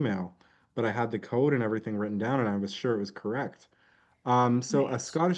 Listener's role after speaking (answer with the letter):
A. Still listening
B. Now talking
A